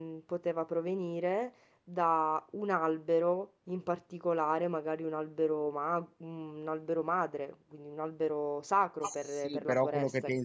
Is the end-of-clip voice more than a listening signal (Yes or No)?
Yes